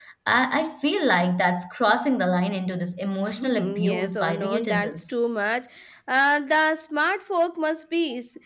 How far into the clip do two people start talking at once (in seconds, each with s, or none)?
3.4 s